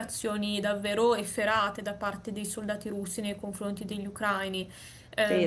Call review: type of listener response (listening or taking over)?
taking over